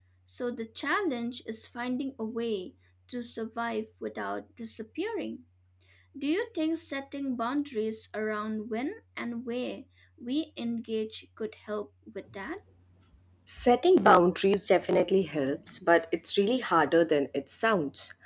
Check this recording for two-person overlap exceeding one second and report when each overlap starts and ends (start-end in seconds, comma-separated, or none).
none